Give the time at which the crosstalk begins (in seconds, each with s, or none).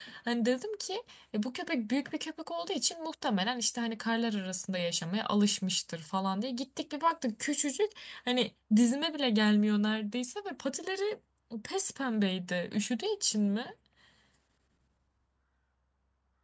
none